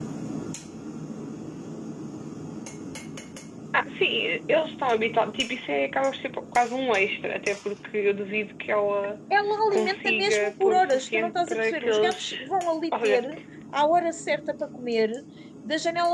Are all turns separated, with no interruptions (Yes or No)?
No